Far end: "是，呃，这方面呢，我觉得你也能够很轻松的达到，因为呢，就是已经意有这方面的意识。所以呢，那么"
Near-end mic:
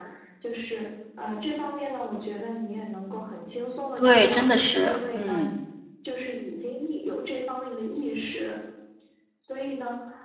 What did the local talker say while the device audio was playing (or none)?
对，真的是，嗯